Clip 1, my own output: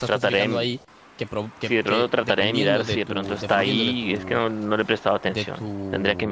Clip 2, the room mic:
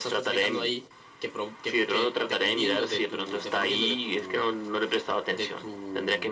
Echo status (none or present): present